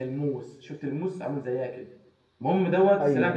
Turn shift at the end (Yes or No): No